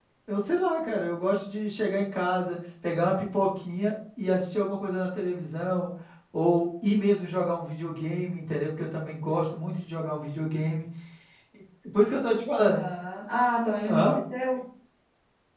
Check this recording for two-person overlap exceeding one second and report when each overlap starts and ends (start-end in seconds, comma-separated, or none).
none